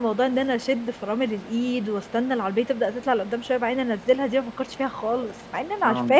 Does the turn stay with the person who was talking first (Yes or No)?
No